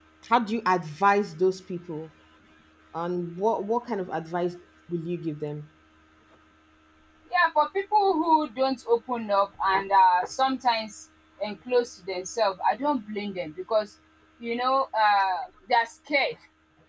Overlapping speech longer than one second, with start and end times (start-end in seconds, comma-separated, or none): none